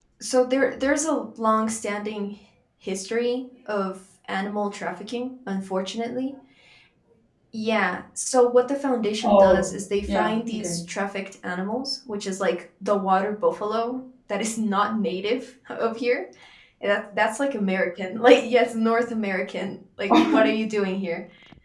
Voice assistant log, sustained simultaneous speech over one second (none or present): present